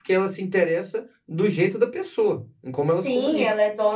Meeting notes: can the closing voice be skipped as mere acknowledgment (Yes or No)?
No